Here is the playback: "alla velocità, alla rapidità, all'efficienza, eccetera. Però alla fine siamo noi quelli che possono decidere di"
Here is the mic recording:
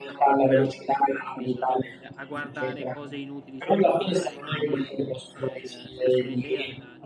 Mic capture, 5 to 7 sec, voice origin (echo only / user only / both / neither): both